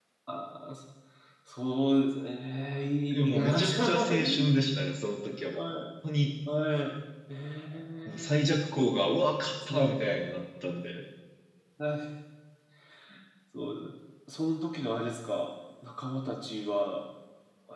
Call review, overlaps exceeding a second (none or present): present